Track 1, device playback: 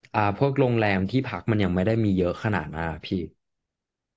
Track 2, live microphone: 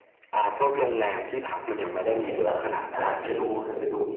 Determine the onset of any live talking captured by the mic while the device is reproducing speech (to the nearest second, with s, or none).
2 s